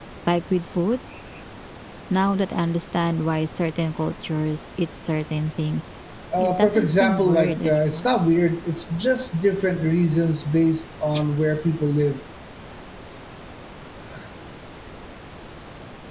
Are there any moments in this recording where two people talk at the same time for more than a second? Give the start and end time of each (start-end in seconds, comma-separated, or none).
6.4-8.1